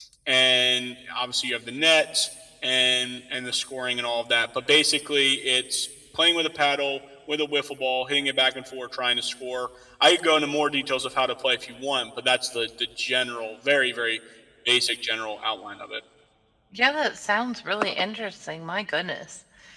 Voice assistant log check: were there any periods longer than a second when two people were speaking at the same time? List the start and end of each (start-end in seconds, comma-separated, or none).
none